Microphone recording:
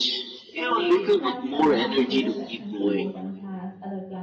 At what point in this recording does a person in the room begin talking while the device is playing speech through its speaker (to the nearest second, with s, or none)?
0 s